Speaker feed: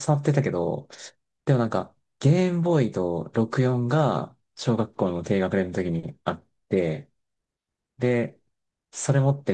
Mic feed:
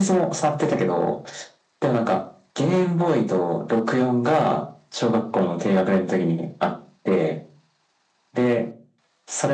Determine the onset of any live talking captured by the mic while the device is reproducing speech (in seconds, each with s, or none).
none